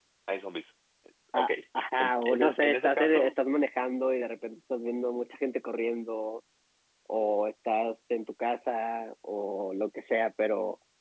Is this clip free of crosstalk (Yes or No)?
No